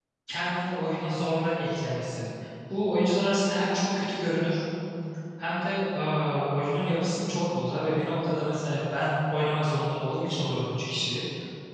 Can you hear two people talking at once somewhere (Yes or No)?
No